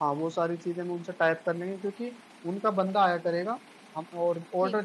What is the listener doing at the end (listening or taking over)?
listening